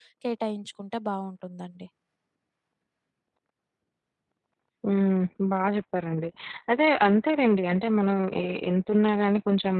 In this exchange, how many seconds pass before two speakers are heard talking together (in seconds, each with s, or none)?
none